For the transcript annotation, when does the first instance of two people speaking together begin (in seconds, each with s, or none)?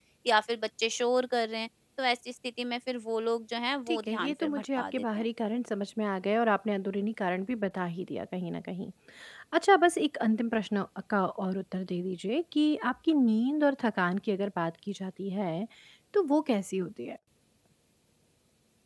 3.9 s